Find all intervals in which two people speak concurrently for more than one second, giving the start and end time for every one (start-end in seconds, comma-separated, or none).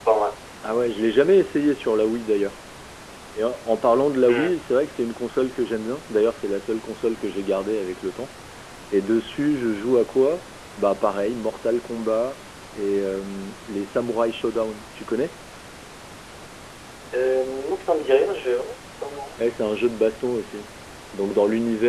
none